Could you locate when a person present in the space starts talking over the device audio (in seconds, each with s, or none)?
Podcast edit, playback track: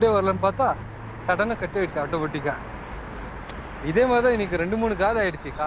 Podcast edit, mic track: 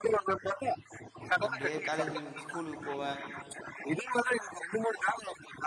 1.4 s